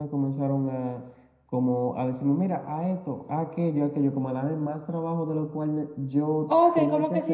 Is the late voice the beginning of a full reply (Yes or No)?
Yes